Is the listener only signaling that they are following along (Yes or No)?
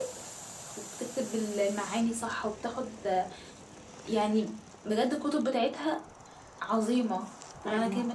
No